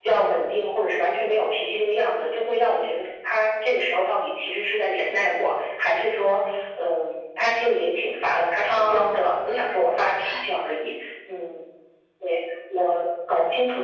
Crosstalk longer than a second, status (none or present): present